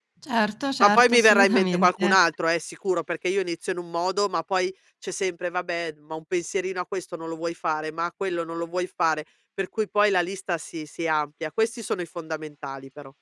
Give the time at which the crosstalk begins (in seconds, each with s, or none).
0.8 s